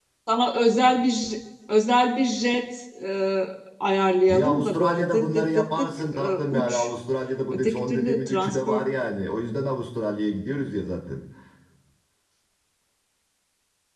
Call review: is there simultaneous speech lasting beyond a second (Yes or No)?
Yes